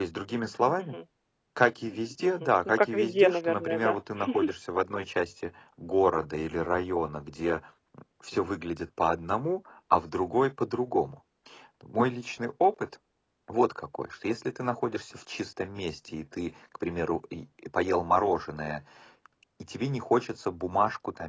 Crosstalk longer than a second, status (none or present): present